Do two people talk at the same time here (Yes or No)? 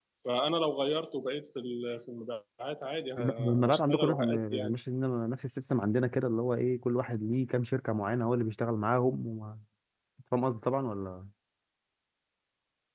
Yes